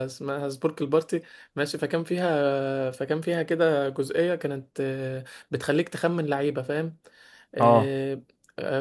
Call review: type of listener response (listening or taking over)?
listening